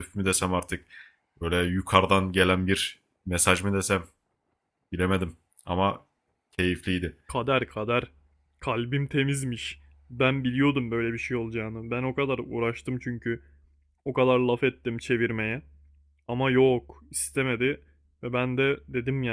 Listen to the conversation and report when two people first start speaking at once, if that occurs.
none

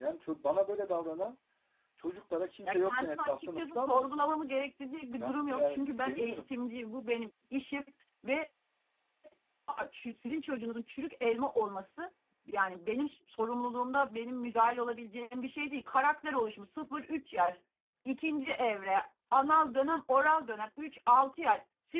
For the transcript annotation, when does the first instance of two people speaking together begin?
2.6 s

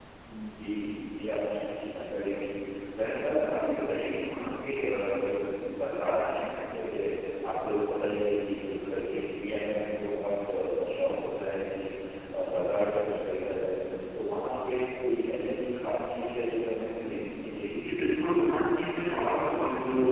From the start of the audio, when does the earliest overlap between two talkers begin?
none

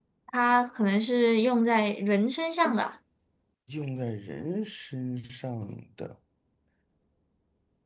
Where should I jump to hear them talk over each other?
none

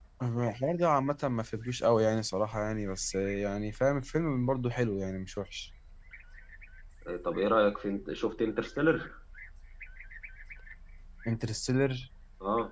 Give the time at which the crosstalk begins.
none

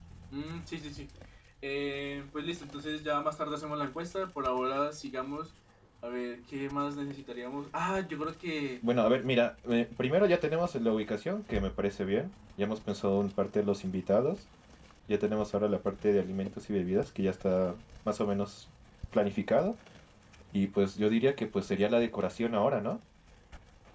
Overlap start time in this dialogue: none

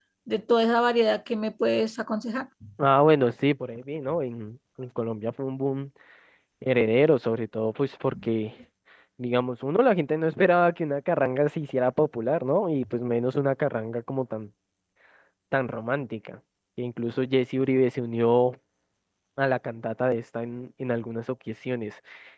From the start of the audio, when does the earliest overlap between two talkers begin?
none

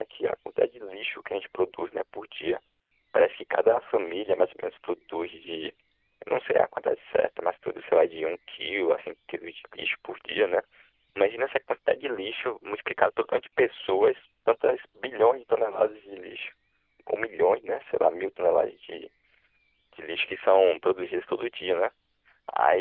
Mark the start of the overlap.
none

